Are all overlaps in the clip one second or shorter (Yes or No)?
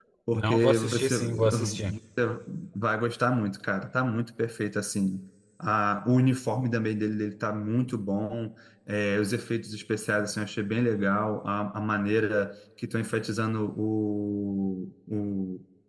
No